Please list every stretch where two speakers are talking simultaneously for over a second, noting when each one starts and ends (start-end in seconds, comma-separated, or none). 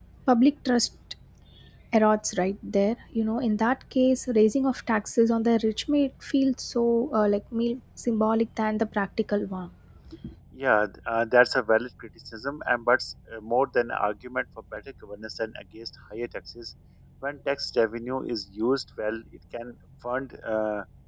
none